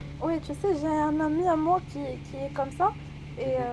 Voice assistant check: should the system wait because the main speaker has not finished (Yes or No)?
Yes